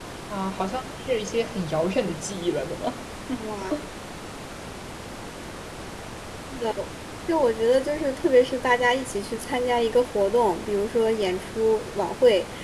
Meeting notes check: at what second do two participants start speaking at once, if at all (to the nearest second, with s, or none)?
none